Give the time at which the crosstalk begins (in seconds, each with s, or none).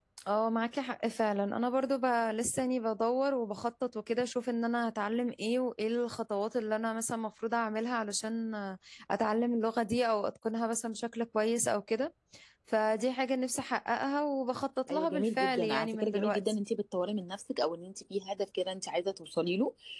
14.9 s